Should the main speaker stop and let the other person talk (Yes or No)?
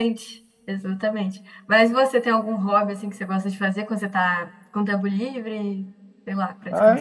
Yes